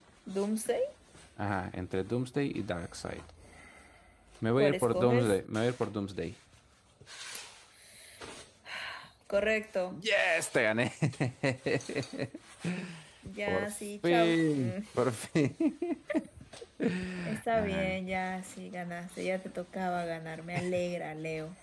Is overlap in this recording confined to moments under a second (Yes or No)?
No